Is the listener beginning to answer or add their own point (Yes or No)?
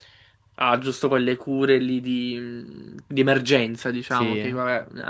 No